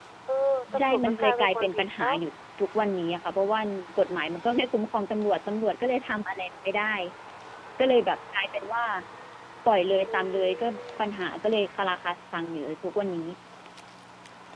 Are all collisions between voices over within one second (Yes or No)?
No